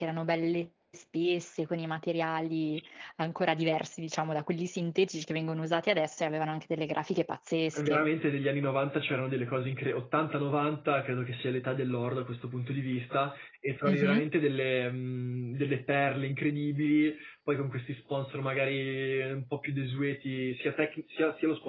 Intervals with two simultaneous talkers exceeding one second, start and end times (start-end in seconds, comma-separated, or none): none